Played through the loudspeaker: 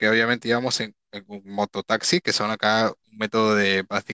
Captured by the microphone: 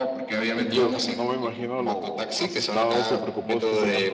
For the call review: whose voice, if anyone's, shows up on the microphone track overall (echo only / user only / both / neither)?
both